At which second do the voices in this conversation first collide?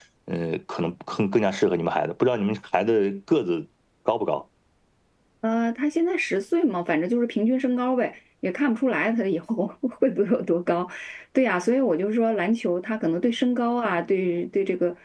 none

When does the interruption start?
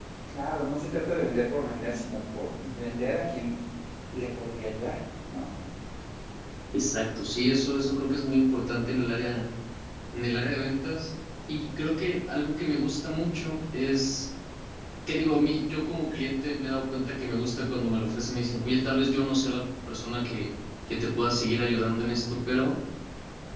none

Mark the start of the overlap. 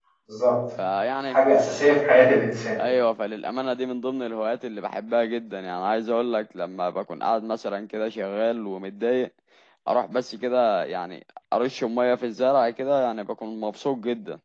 none

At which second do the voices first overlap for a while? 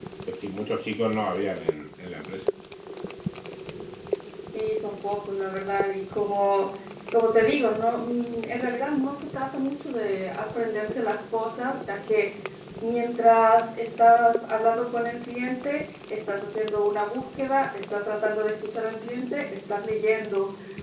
none

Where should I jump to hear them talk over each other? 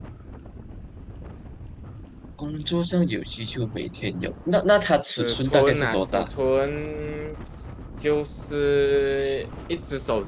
5.0 s

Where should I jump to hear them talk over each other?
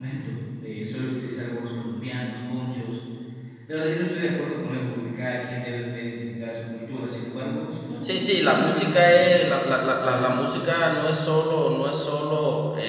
8.0 s

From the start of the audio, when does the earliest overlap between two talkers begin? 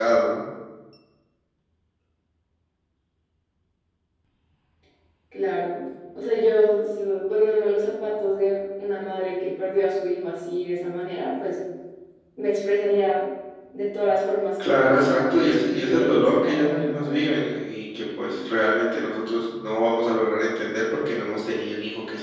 14.6 s

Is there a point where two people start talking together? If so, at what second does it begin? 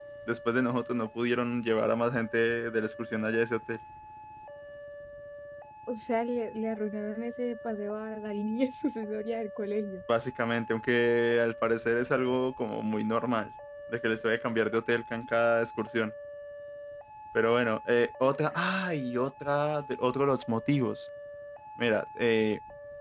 none

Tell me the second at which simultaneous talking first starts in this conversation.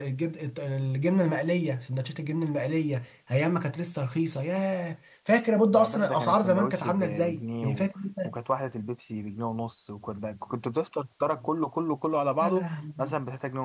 5.7 s

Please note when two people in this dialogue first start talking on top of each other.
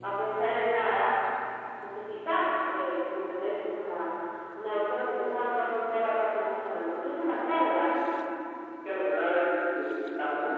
none

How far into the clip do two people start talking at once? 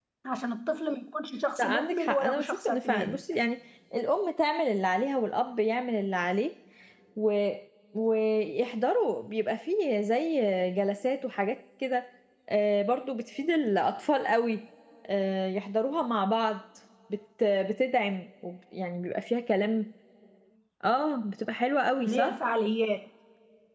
1.6 s

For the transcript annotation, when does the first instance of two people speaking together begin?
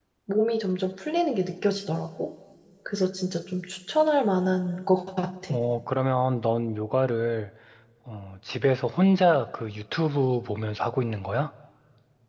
none

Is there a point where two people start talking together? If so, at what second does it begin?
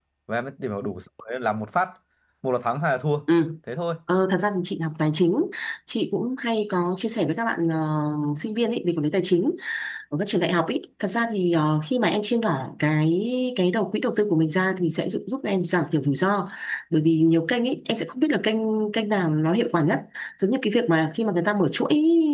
none

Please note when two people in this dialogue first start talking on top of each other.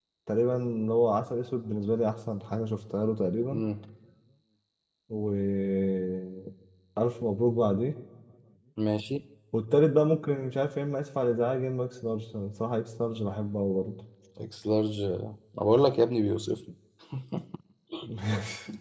none

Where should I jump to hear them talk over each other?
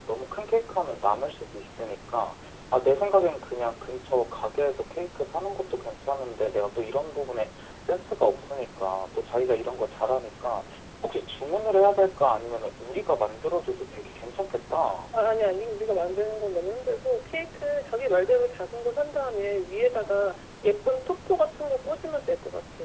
none

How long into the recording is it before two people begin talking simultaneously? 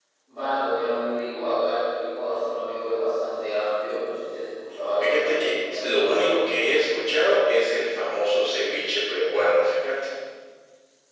5.0 s

